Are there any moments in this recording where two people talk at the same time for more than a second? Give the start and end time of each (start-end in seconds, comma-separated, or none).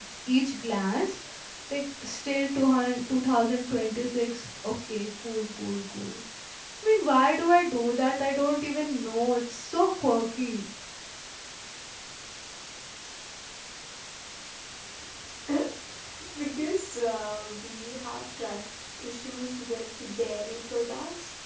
none